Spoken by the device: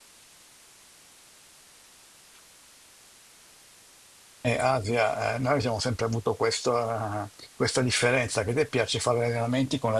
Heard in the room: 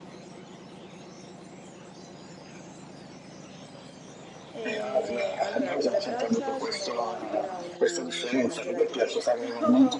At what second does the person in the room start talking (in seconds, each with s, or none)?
4.5 s